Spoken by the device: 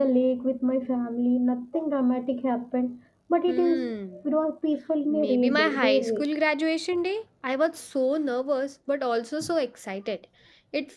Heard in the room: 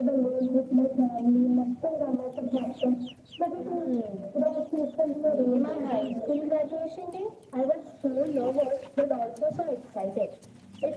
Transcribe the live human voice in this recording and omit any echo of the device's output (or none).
none